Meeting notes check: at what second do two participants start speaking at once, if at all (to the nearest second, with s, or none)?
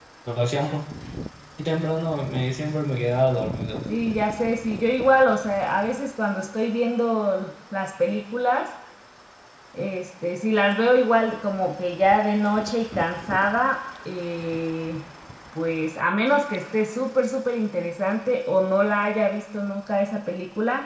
none